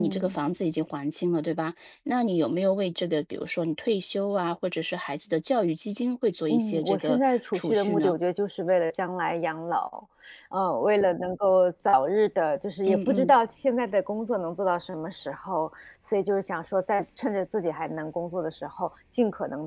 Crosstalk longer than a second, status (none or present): present